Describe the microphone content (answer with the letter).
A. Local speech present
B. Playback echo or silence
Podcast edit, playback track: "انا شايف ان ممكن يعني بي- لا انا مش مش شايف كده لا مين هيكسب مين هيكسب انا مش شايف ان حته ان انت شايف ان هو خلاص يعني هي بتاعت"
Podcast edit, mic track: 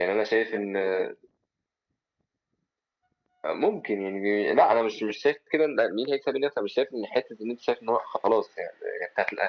B